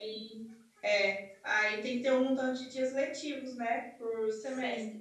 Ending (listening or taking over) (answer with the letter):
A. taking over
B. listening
B